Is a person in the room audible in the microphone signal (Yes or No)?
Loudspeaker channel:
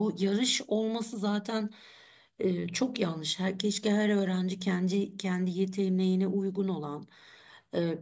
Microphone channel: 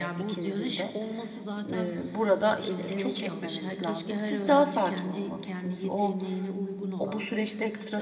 Yes